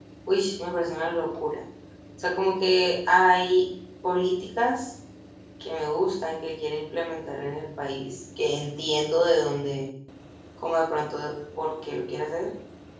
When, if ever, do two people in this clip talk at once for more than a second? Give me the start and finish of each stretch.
none

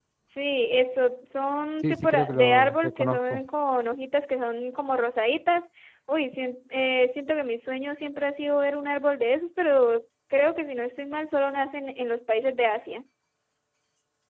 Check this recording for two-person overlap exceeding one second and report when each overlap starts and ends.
1.8-3.4

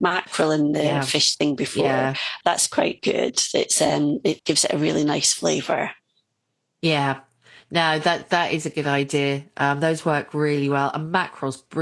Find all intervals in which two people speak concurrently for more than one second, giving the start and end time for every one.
none

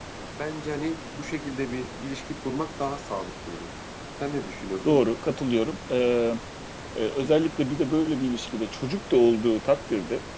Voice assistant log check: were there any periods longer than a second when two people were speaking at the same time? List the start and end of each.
none

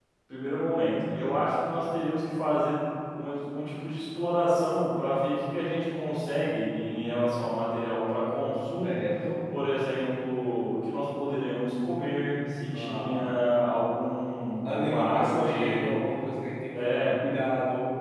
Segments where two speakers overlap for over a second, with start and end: 14.7-15.9

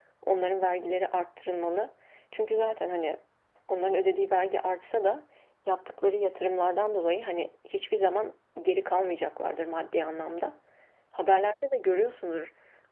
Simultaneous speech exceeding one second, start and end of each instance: none

